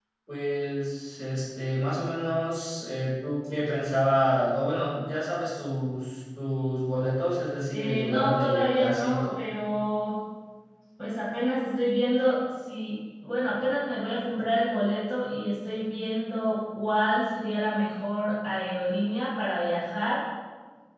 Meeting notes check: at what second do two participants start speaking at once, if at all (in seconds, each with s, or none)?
7.7 s